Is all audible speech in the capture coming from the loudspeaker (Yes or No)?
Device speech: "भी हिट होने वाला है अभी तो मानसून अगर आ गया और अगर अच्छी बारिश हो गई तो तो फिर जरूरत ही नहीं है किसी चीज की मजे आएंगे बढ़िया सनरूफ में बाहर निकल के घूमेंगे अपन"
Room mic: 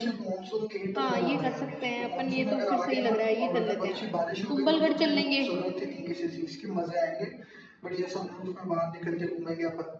No